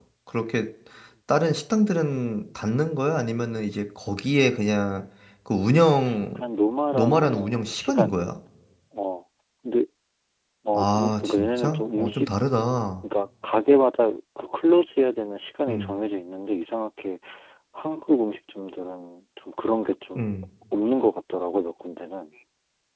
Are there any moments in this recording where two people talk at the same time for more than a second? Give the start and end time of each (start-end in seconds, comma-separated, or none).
6.9-8.2, 10.7-12.3